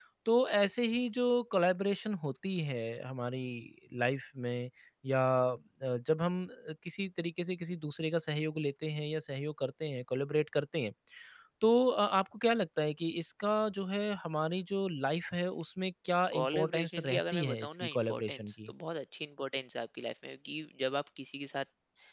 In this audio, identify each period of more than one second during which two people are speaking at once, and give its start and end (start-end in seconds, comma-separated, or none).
16.4-18.7